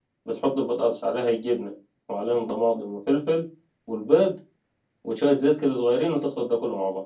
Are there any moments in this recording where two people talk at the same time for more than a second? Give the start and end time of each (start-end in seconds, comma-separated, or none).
none